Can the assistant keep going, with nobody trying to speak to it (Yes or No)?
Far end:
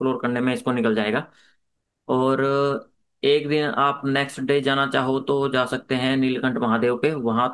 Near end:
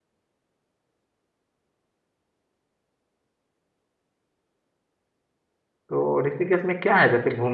No